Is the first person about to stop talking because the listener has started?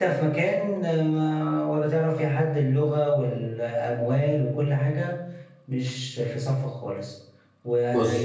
No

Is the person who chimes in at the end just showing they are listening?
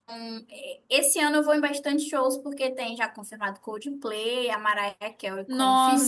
No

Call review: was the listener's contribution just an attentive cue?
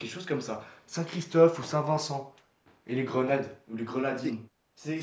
No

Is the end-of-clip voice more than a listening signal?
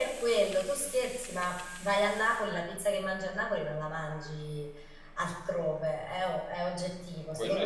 No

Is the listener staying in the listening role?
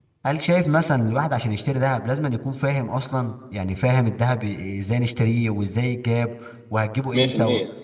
Yes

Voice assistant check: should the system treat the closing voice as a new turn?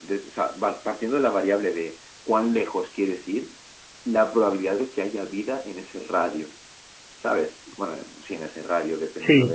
Yes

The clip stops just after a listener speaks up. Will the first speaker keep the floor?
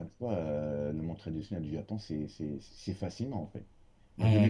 Yes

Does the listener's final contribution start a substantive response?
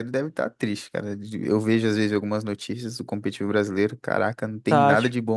Yes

